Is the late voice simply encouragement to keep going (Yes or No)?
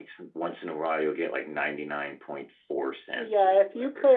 No